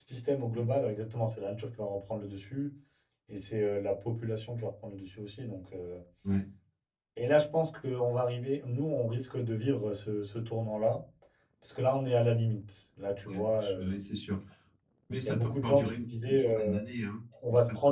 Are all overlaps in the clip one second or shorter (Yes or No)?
No